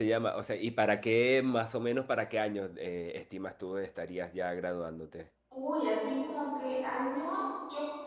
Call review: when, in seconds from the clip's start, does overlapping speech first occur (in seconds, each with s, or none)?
none